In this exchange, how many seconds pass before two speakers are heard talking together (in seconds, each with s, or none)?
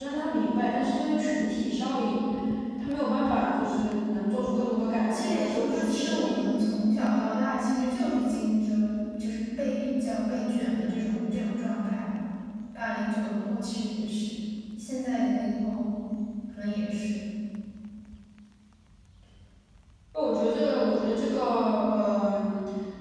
5.0 s